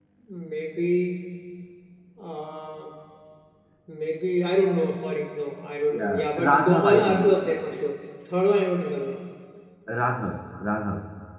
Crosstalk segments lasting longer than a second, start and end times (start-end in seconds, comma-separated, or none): 5.9-7.4